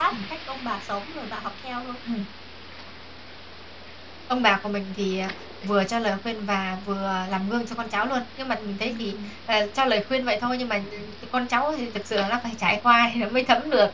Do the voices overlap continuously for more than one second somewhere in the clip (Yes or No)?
No